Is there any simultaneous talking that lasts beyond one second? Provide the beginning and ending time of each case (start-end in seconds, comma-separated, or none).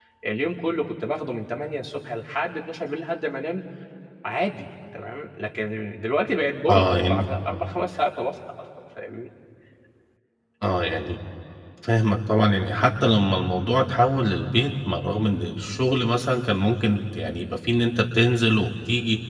none